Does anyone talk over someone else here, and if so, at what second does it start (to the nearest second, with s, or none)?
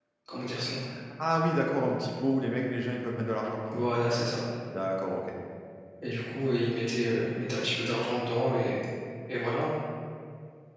none